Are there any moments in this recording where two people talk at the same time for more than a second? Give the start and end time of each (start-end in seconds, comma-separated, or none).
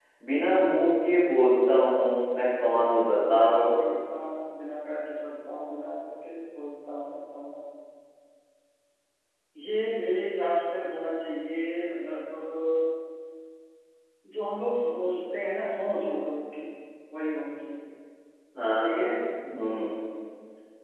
none